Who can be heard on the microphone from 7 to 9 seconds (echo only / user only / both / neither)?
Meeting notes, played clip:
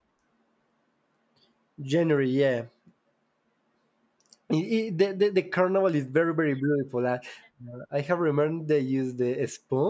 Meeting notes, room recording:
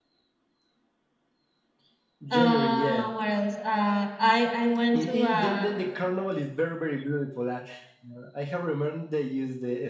echo only